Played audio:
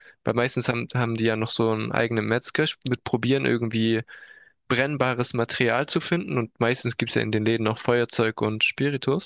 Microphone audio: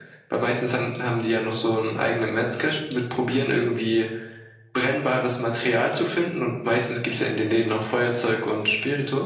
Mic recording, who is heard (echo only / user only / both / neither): echo only